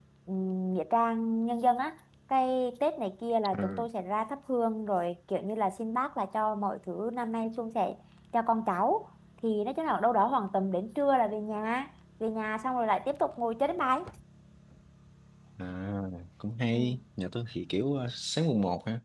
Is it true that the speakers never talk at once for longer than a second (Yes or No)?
Yes